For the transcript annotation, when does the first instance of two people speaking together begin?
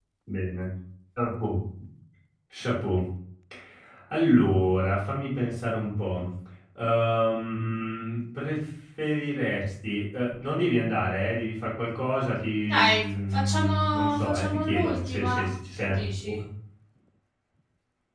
13 s

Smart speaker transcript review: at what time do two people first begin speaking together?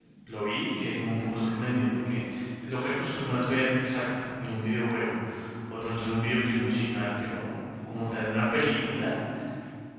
none

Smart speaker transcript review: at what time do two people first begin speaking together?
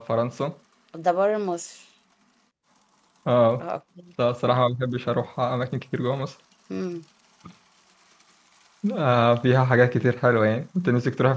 none

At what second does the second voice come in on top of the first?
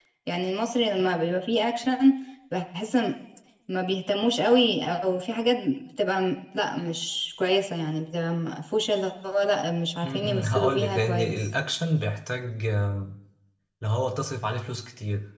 10 s

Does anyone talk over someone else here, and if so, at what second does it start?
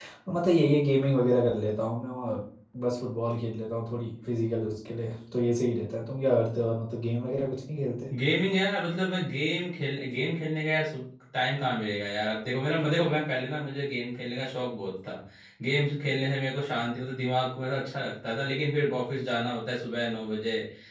none

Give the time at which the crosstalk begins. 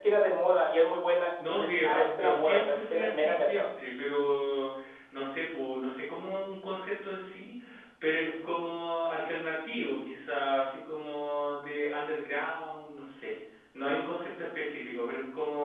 1 s

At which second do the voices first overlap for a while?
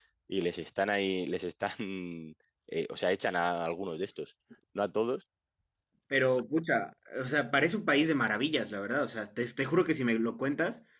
none

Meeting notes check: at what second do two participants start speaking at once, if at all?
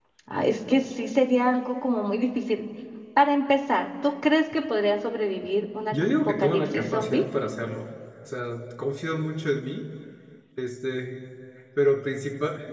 6 s

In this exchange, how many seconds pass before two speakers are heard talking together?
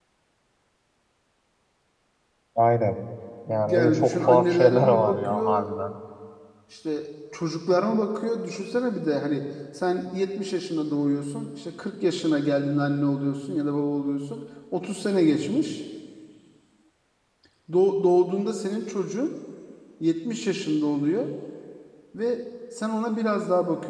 4 s

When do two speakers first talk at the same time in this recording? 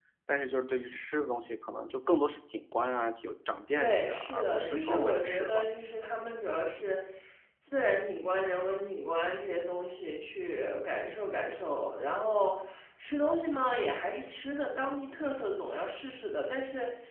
4 s

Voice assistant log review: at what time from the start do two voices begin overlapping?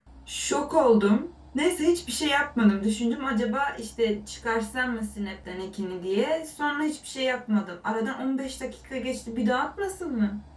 none

